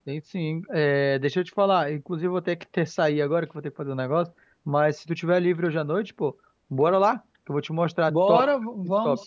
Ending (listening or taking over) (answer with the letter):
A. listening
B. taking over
B